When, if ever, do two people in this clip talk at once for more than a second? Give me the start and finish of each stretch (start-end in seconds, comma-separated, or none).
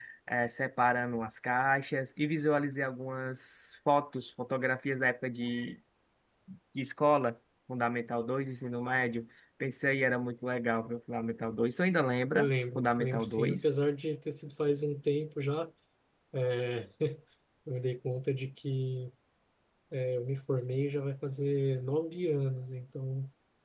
12.3-13.7